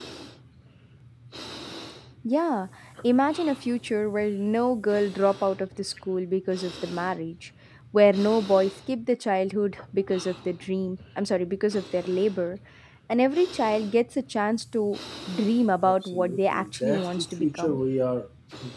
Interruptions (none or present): present